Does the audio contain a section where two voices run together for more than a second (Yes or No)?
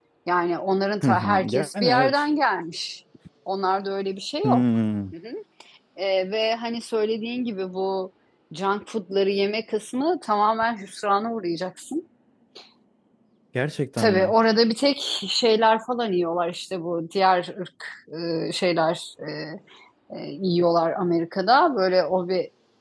Yes